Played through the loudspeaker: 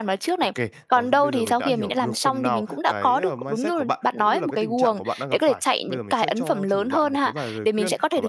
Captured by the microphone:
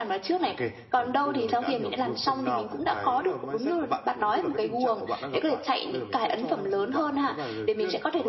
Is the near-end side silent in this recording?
Yes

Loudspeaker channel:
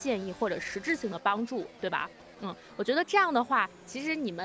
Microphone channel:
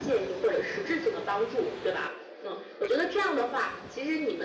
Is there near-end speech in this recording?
No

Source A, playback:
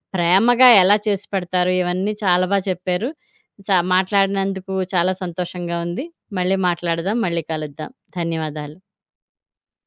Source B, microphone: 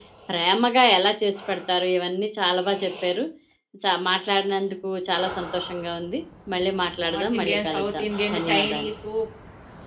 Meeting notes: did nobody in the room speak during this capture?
No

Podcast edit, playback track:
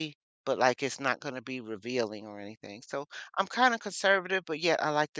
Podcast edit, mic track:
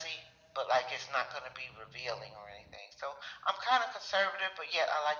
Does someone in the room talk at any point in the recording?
No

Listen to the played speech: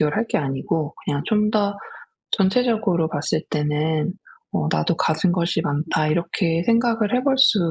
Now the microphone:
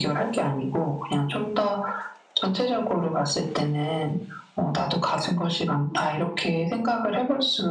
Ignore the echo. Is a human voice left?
No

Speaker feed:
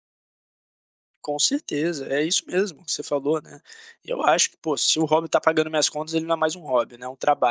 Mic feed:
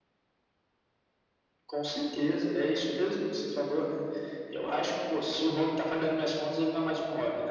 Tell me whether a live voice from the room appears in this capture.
No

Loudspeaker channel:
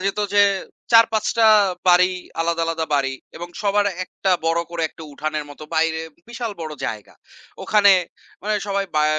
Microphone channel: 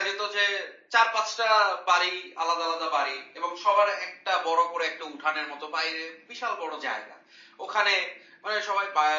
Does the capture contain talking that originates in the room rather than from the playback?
No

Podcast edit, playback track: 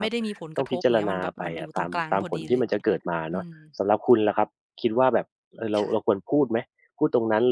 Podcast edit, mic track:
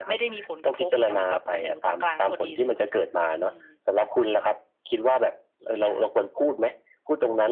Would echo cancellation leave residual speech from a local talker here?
No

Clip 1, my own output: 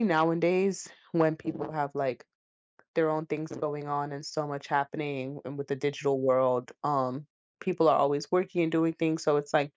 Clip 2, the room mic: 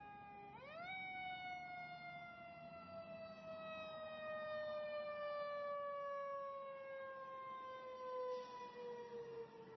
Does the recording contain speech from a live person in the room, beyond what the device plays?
No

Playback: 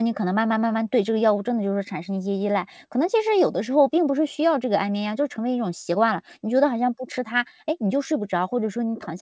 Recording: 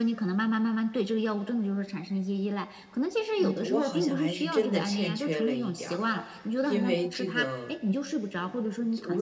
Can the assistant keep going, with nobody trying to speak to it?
No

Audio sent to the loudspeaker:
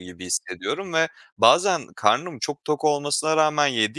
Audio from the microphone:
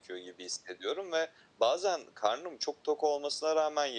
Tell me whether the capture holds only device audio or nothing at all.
Yes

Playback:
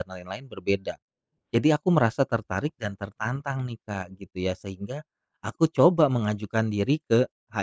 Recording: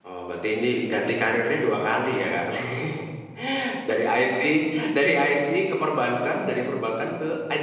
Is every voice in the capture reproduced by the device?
No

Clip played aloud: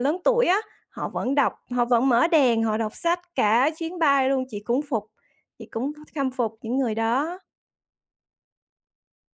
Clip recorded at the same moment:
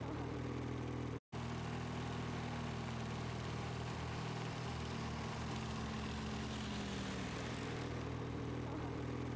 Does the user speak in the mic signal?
No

